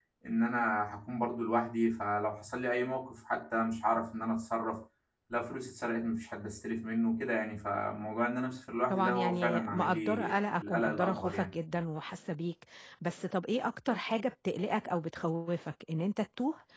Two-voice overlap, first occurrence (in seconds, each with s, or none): 8.9 s